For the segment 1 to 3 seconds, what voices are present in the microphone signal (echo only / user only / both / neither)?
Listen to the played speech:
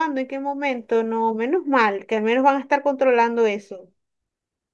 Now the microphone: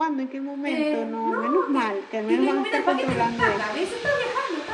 both